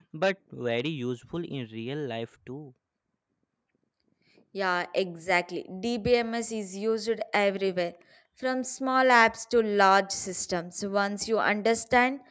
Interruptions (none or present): none